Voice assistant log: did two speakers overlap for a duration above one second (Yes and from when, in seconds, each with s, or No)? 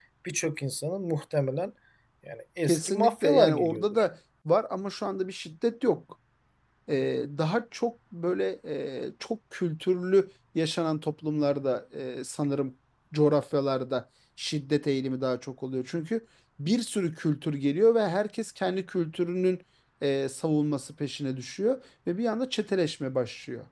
Yes, from 2.6 s